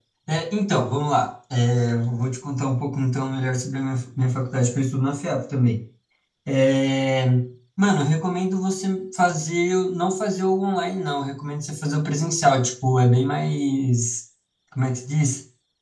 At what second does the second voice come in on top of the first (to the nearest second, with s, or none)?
none